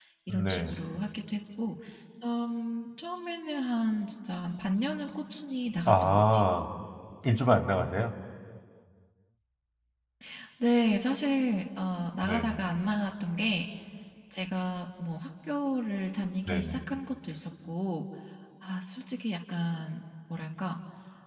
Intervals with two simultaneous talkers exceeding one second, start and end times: none

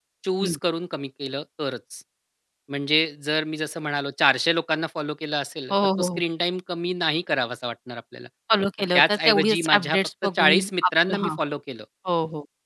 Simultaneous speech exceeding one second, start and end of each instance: 8.9-11.3

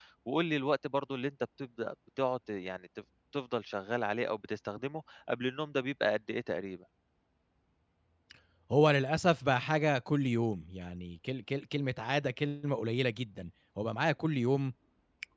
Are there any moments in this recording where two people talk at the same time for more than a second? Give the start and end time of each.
none

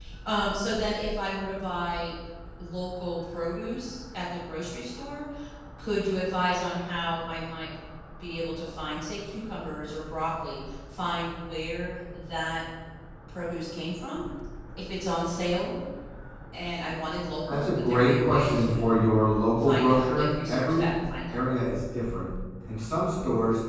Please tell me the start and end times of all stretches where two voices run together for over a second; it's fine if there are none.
17.5-19.0, 19.6-20.9

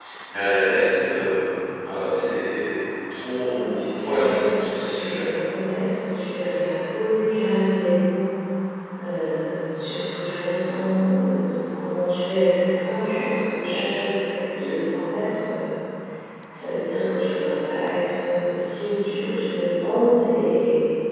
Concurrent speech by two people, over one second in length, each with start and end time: 3.4-5.3

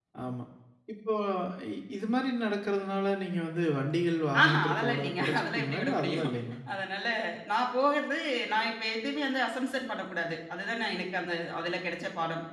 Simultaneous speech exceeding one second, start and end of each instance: 4.4-6.3

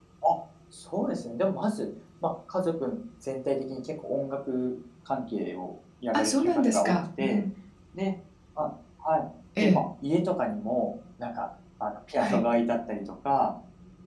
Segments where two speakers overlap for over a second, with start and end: 6.1-7.4

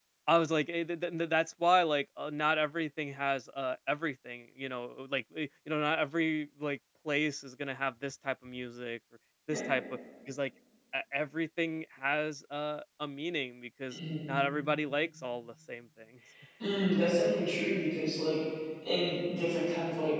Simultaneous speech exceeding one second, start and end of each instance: none

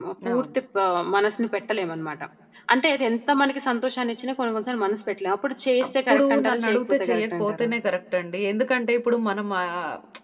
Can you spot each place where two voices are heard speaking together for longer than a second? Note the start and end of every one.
5.8-7.7

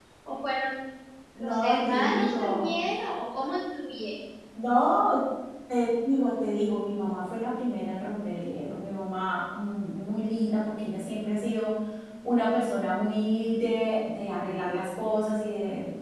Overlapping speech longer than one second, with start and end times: 1.4-2.7

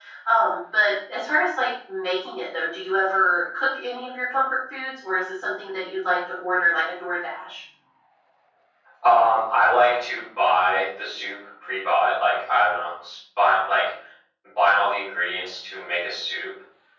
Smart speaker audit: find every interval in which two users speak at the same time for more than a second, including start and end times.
none

